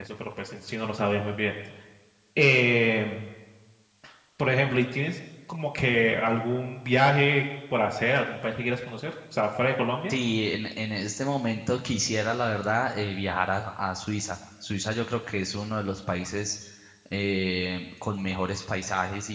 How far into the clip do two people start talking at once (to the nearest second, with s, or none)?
none